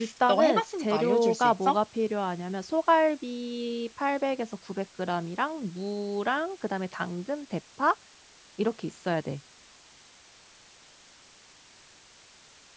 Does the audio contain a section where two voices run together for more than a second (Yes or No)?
Yes